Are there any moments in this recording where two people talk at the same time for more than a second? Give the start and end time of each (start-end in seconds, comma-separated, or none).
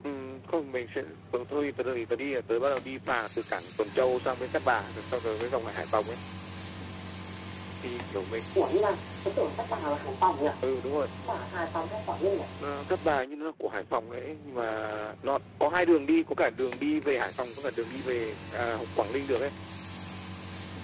none